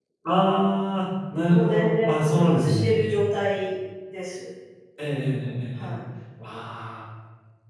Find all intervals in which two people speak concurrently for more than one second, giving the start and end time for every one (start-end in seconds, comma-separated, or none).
1.5-2.9